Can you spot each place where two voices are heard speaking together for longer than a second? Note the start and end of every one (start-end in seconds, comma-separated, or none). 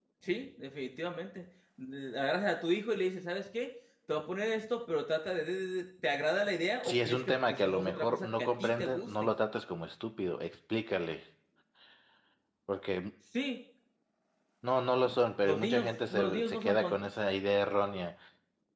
6.8-9.3, 15.4-17.1